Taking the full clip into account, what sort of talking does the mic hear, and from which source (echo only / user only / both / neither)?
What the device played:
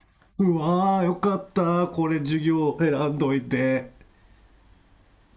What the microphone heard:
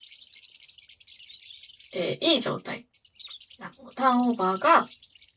user only